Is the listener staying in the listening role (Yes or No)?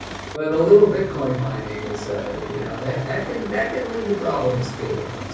No